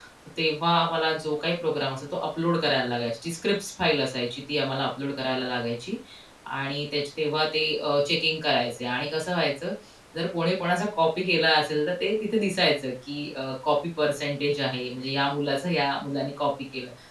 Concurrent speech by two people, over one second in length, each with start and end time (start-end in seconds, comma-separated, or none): none